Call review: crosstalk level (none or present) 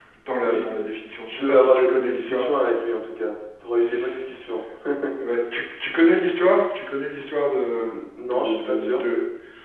present